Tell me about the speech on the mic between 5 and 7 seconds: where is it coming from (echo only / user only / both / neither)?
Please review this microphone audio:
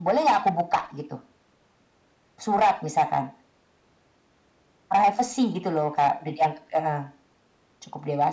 echo only